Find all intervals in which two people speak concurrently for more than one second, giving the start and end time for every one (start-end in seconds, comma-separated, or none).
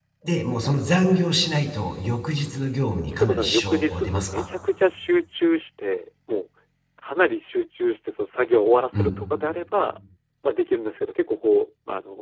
3.1-4.5